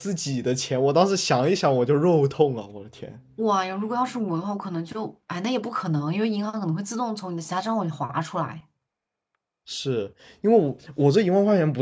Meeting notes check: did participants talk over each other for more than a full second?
No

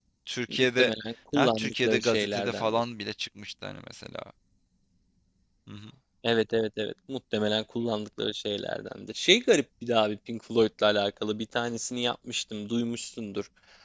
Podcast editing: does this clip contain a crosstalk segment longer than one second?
Yes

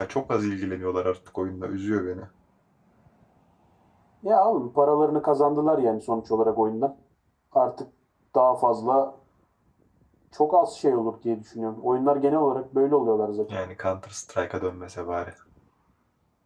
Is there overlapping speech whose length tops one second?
No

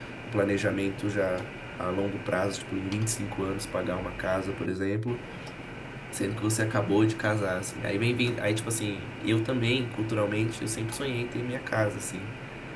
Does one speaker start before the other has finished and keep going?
No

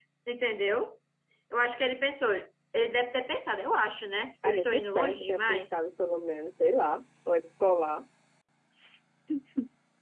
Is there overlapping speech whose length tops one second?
Yes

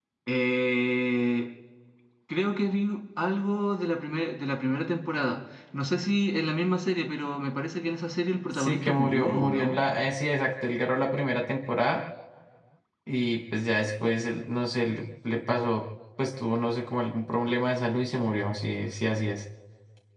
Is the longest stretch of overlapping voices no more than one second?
No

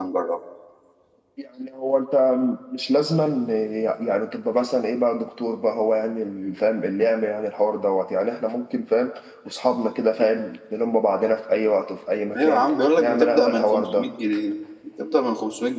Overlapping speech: Yes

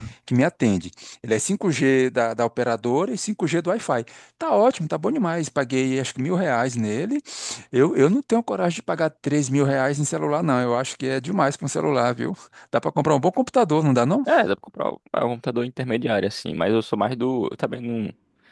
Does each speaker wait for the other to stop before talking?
Yes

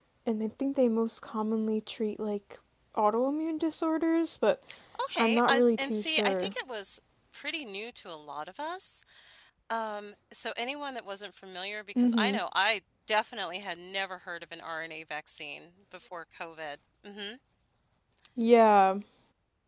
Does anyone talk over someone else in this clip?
Yes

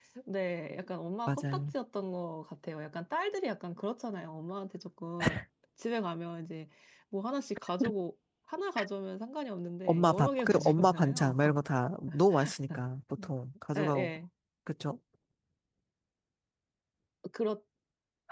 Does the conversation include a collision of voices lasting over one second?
Yes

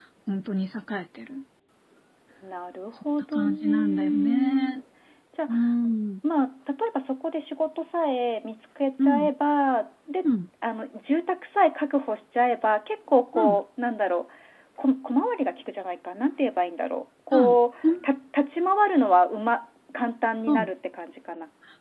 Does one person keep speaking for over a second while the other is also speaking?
Yes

